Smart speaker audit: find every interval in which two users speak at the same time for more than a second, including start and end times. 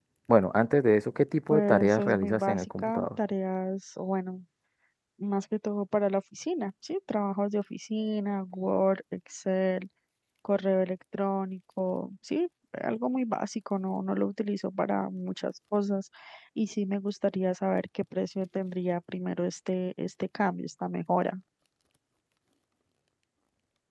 1.5-3.1

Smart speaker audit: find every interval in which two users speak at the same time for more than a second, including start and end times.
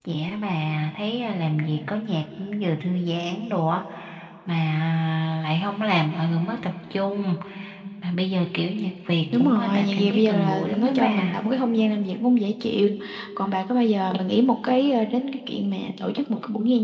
9.3-11.4

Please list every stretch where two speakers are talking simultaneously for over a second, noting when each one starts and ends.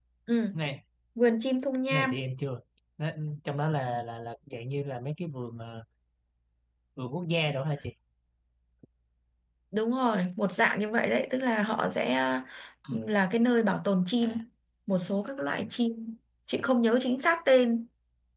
none

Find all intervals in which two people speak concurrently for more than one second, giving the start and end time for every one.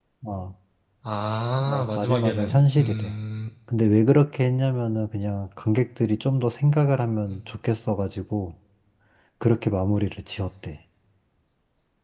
1.6-3.1

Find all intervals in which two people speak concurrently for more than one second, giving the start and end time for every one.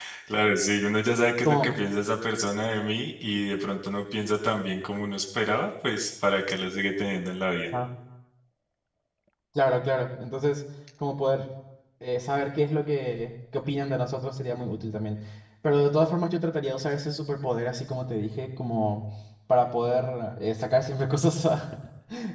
none

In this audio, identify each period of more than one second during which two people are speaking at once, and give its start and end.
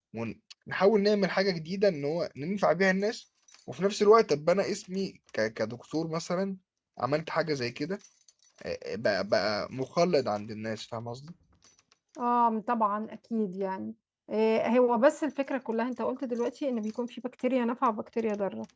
none

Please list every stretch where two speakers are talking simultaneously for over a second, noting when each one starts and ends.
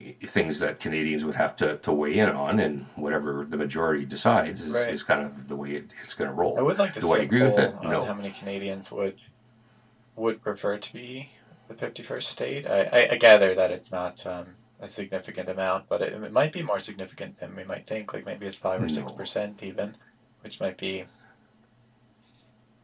6.5-8.1

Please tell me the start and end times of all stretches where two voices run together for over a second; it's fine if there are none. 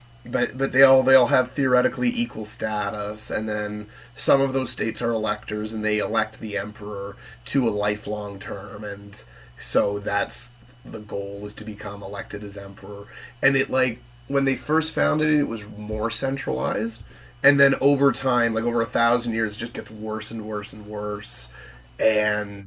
none

